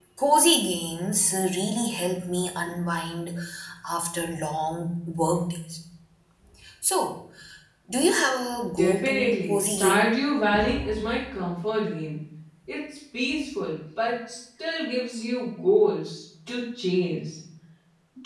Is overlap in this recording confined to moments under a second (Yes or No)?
No